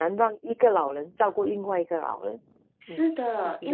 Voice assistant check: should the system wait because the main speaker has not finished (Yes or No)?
No